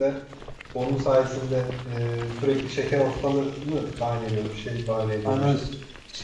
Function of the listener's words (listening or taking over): taking over